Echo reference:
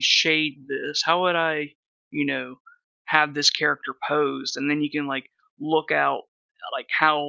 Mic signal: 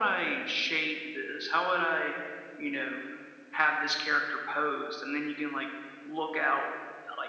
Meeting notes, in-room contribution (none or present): none